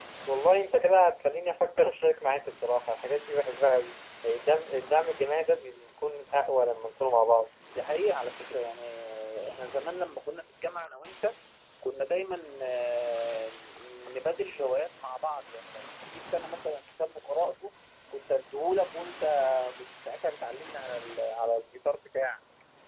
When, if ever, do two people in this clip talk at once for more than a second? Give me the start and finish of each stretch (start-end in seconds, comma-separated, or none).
none